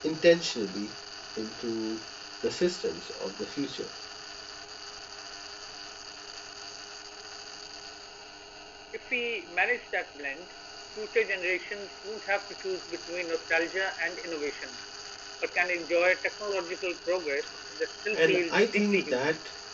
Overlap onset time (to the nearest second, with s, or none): 18 s